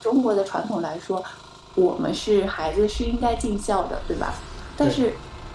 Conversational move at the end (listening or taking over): listening